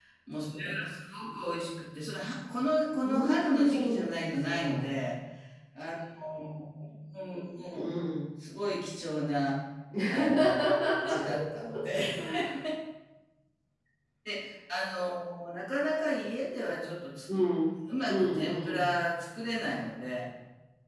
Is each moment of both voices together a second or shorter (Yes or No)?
No